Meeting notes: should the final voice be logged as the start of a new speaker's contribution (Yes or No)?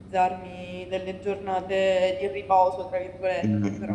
Yes